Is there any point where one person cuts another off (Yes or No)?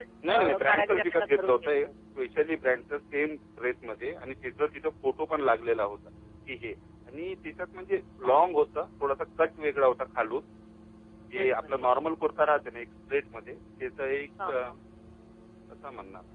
Yes